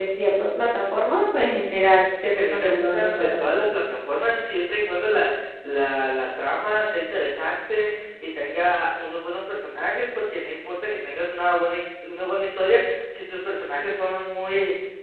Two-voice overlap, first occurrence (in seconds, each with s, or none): 2.1 s